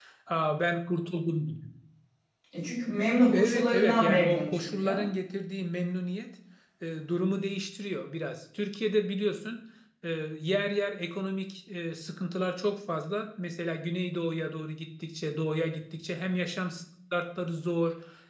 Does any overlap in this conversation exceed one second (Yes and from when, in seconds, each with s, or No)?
Yes, from 3.3 s